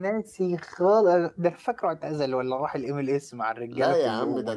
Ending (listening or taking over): taking over